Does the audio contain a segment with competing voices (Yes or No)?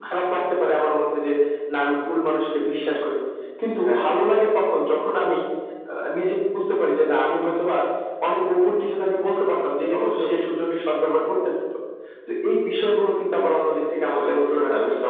Yes